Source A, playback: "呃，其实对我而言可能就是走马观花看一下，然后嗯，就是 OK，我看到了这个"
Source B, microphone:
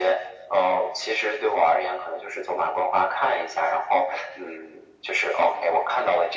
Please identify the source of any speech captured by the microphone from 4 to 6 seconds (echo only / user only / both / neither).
echo only